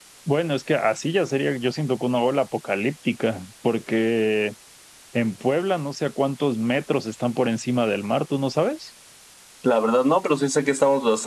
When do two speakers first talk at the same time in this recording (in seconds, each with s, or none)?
none